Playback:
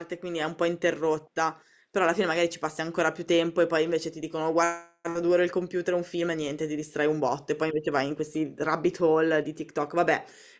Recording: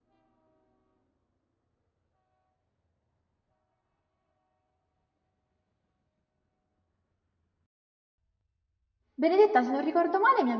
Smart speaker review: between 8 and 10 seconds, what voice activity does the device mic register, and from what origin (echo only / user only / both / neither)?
user only